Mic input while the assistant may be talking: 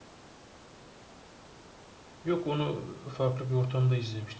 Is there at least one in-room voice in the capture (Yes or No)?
Yes